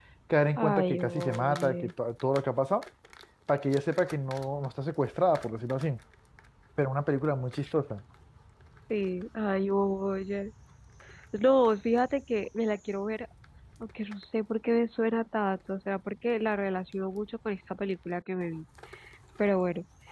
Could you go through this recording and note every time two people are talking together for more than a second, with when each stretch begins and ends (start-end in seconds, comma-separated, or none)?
0.6-1.9